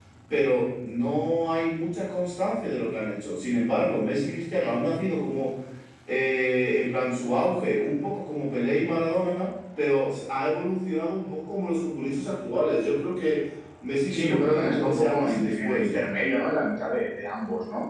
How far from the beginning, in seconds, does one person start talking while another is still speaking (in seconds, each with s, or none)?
14.1 s